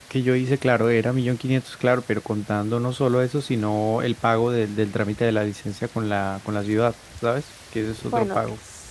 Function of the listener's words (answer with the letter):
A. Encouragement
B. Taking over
B